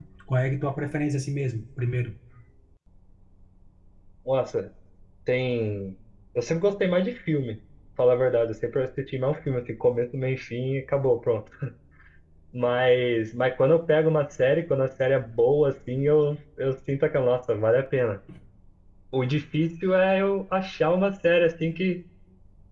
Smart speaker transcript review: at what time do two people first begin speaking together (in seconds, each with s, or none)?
none